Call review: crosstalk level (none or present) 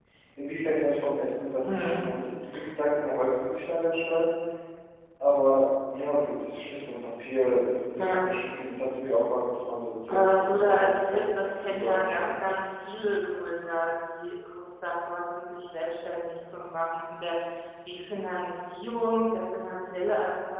present